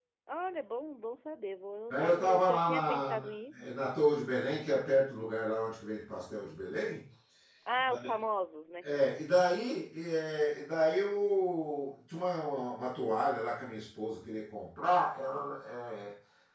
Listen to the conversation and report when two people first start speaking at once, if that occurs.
1.9 s

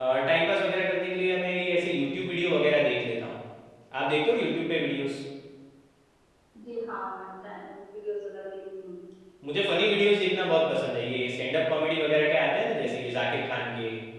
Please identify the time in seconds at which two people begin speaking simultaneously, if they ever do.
none

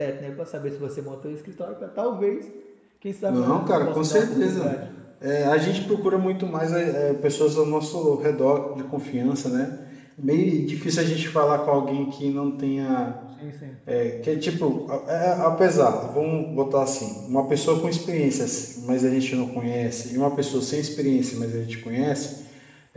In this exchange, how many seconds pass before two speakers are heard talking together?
3.3 s

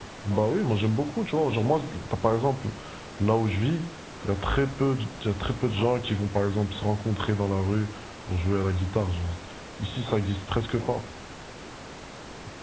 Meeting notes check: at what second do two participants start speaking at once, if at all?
none

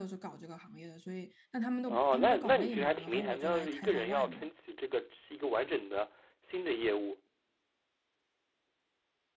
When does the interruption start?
1.9 s

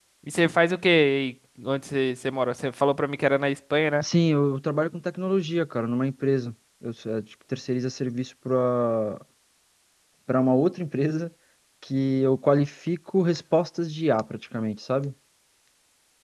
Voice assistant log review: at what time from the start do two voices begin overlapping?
none

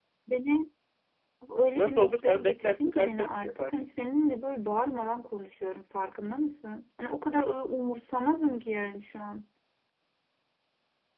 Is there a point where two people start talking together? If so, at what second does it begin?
1.8 s

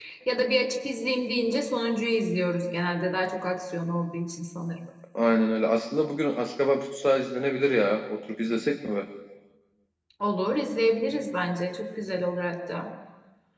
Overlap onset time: none

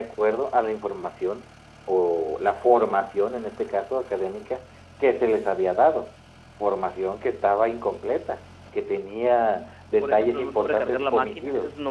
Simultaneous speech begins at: 10.0 s

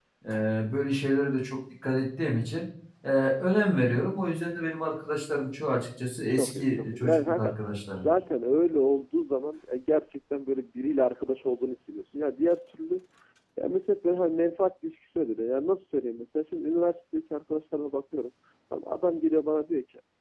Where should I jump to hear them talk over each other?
6.3 s

